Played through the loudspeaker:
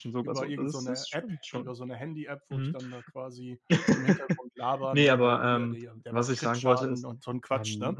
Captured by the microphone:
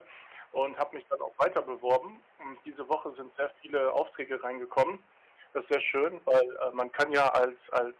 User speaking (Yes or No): Yes